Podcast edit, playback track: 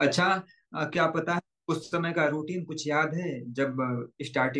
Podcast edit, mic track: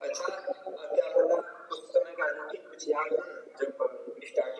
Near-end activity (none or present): none